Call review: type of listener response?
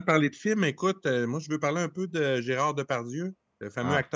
listening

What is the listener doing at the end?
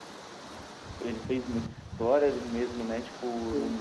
listening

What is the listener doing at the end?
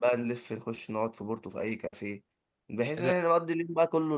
listening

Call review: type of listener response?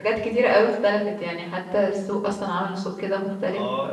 taking over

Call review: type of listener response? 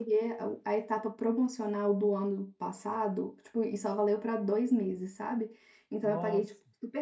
listening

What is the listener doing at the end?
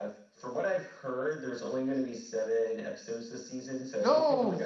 listening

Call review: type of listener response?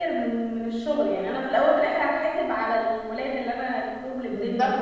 taking over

